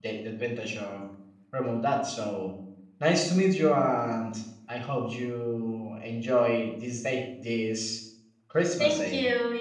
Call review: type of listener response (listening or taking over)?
taking over